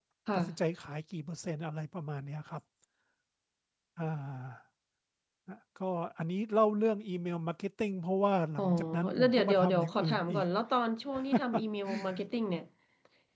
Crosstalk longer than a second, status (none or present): present